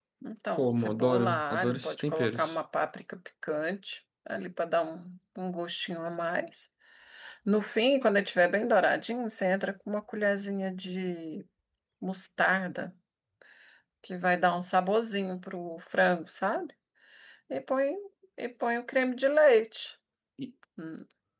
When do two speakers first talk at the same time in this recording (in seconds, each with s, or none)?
0.6 s